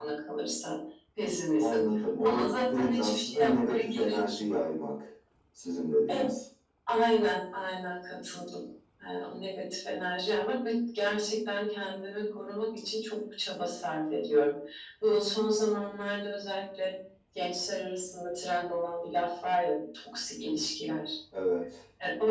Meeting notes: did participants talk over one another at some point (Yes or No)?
Yes